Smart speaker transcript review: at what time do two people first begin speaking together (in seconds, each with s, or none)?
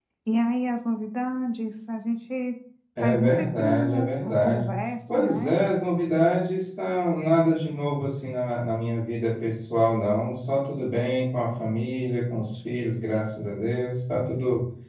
3.0 s